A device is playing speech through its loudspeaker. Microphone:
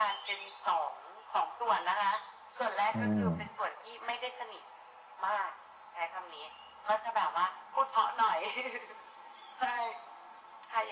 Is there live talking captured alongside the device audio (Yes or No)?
Yes